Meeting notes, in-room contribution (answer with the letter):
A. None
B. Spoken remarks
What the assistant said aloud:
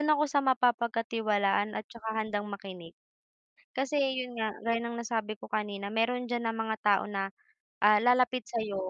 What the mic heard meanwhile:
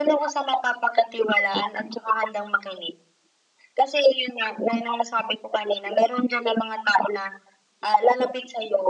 A